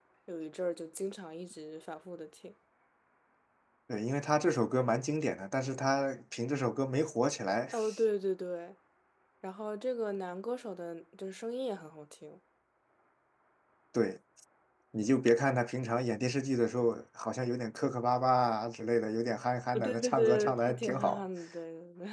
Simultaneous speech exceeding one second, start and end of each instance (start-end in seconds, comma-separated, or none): 19.7-21.2